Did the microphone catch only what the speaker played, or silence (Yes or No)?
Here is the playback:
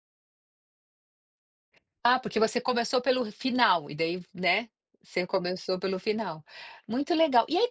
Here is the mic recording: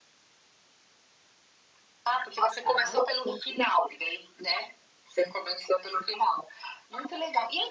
No